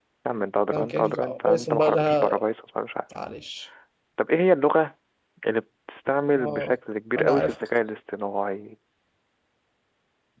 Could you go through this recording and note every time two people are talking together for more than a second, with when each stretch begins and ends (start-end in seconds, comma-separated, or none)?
0.7-2.4